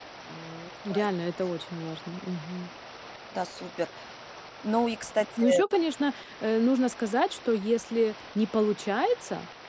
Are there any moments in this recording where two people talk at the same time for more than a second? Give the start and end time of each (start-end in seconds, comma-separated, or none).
none